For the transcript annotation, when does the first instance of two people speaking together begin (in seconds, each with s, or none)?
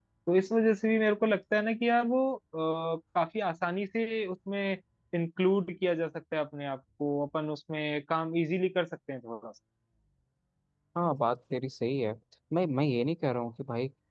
none